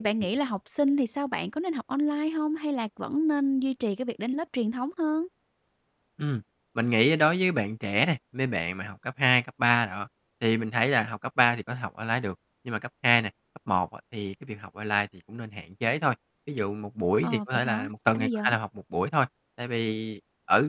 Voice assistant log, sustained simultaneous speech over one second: present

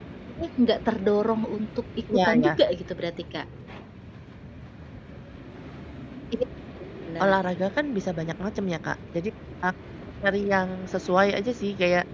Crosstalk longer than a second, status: none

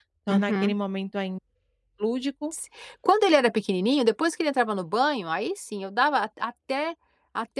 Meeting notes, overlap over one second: none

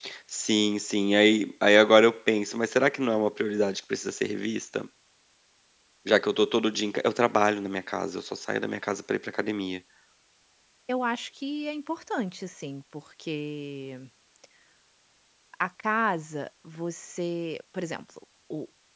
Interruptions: none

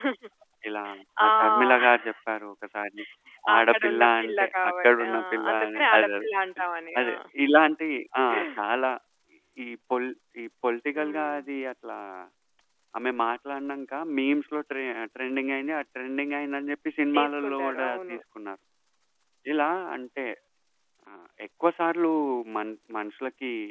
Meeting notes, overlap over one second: present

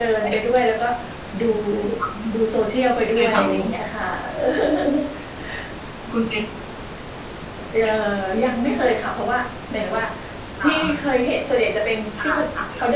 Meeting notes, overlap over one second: none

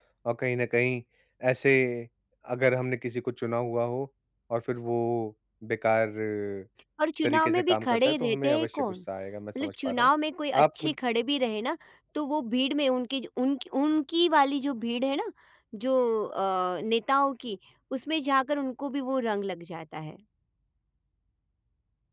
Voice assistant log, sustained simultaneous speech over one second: present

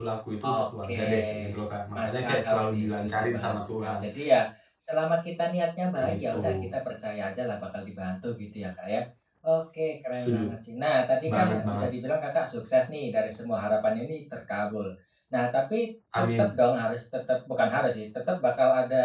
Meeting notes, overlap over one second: present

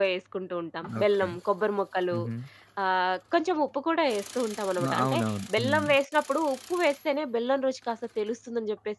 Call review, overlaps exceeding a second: none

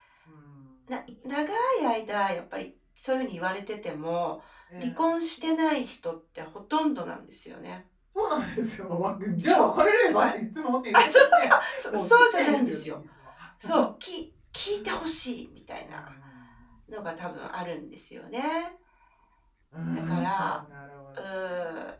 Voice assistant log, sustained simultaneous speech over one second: present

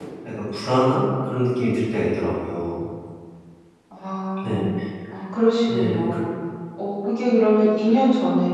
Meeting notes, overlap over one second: none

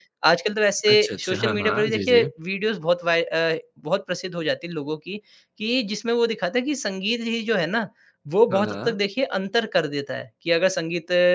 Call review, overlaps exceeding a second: present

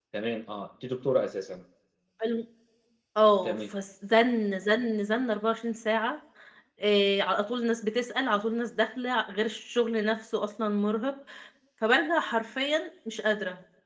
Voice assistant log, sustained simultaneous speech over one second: none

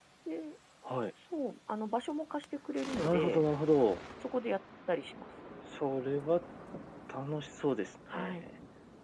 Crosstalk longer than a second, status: none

